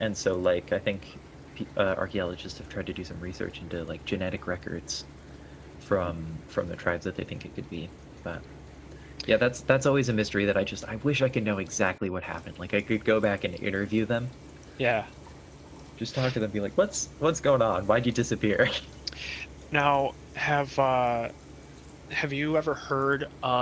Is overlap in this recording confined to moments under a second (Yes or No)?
Yes